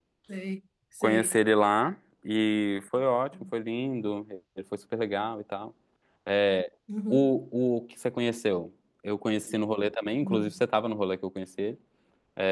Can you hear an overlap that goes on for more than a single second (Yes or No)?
No